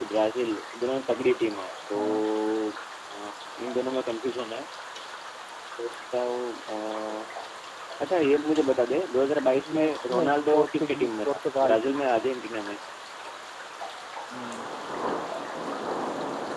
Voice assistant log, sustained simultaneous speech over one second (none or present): present